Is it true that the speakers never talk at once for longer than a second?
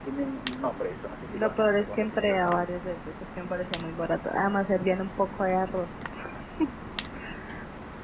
No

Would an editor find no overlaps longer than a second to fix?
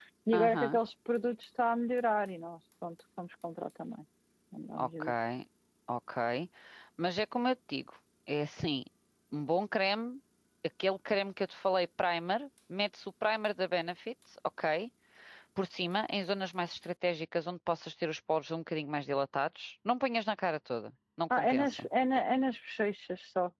Yes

